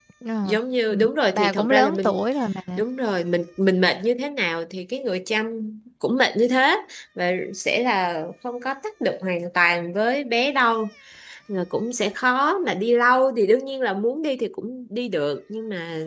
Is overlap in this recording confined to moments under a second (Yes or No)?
No